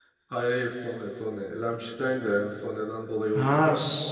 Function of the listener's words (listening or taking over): taking over